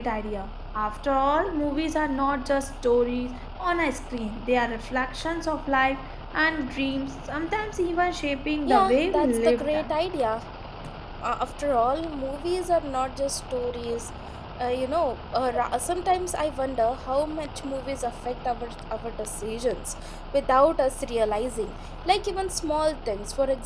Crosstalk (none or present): present